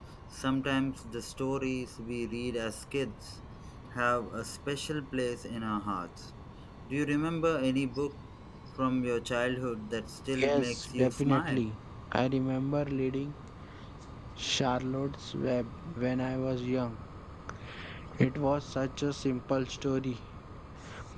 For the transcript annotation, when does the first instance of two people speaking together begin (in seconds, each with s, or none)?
10.3 s